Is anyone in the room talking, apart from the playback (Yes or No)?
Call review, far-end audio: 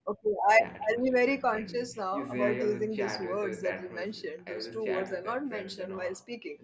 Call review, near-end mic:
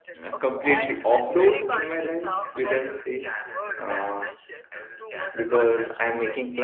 Yes